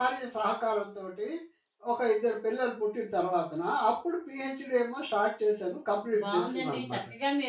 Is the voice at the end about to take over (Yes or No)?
Yes